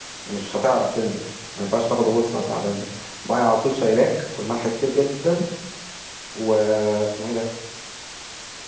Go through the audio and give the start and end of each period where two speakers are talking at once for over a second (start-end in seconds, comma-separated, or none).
none